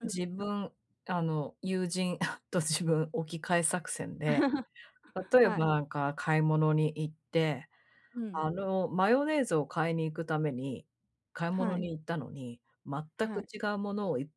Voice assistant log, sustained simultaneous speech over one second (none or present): none